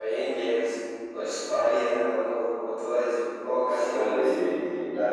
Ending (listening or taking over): taking over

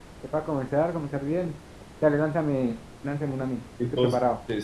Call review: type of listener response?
taking over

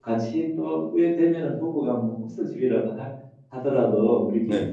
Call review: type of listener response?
listening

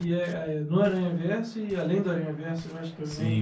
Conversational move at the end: taking over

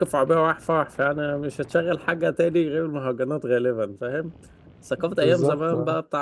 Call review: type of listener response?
listening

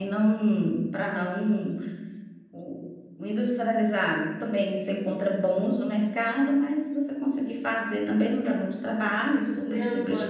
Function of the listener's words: taking over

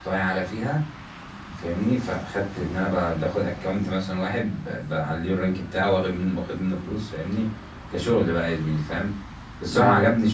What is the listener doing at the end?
listening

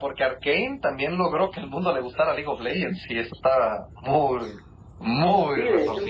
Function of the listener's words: taking over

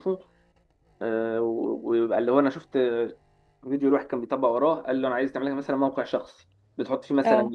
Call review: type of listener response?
listening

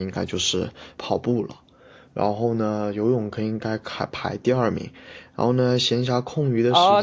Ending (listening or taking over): taking over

